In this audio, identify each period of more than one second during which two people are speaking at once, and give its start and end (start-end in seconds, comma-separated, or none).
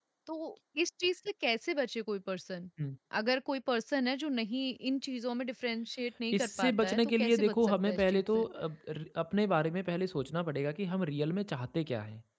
6.3-8.4